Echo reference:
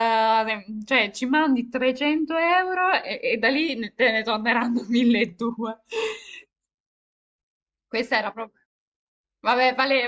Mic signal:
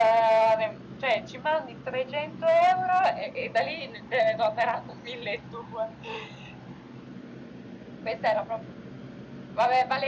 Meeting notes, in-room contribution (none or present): none